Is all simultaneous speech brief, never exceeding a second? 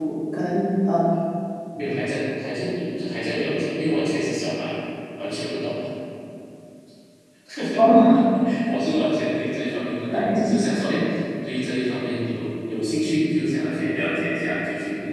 Yes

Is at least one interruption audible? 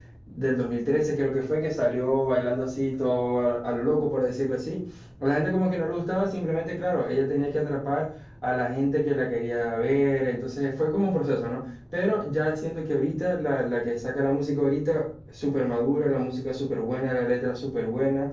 No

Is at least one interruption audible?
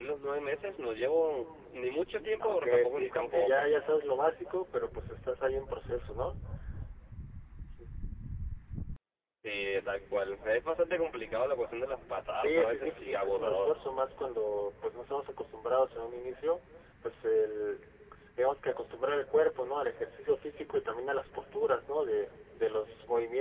Yes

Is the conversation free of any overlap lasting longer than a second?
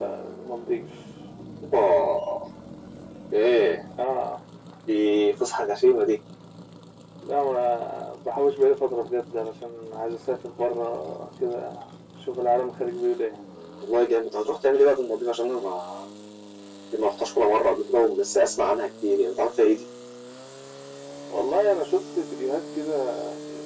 Yes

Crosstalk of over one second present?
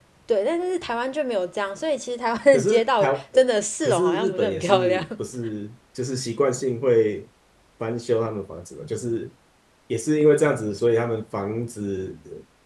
Yes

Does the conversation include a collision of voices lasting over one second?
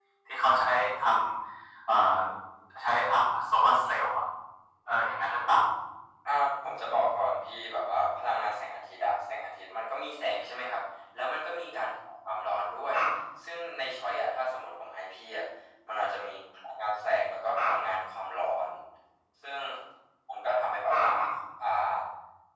No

